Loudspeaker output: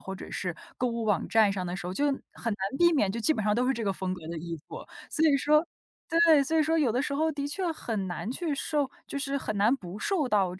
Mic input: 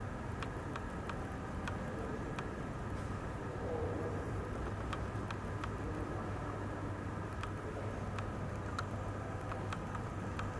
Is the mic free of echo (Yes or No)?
Yes